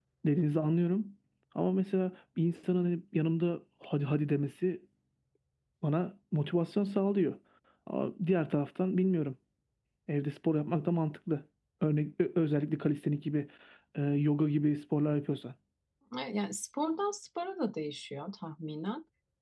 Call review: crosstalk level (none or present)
none